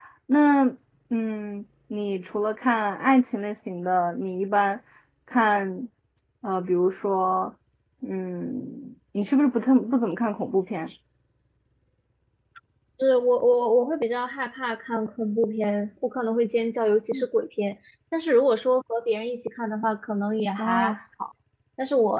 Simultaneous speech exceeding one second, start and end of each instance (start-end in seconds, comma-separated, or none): none